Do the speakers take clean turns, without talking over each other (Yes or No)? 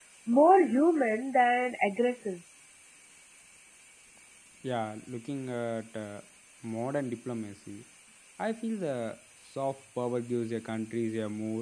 Yes